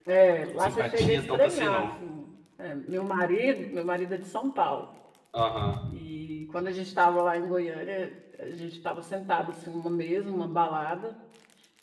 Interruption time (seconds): 0.6 s

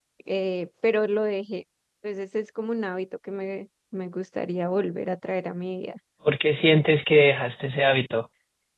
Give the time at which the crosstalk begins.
none

